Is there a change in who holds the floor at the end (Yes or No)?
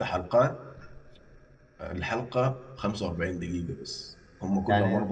Yes